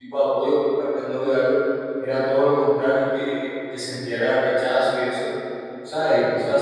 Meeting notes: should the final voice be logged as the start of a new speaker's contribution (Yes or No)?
No